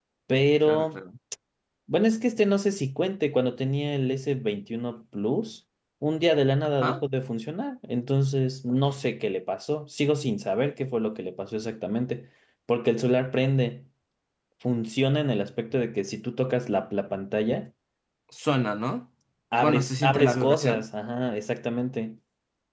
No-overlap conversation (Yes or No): No